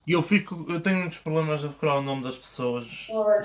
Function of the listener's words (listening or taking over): taking over